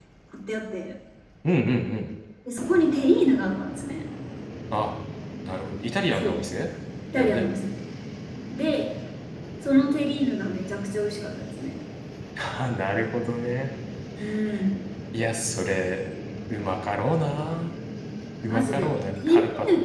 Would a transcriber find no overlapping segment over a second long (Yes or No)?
No